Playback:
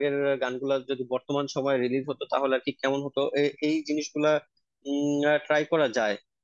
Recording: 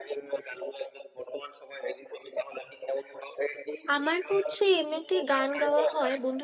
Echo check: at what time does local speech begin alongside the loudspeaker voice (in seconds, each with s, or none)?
4.0 s